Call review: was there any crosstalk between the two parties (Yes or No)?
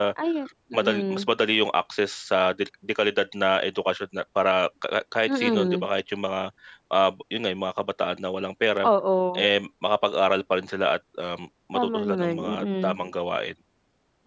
Yes